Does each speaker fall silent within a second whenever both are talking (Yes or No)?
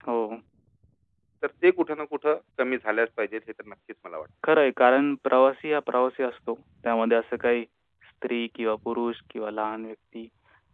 Yes